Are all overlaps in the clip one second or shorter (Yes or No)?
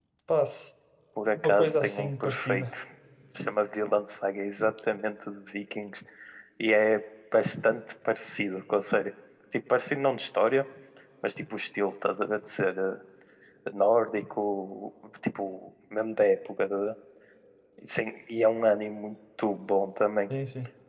No